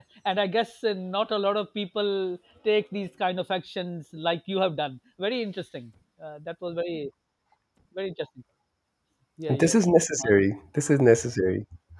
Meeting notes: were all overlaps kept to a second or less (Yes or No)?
Yes